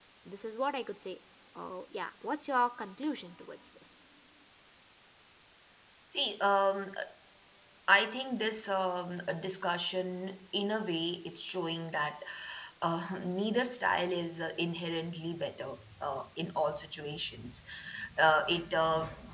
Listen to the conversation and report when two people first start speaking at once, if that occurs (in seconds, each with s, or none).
none